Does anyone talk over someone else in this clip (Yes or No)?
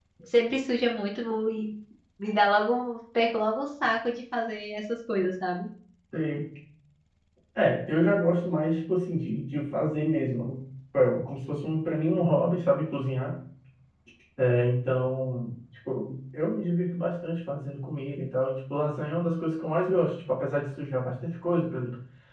No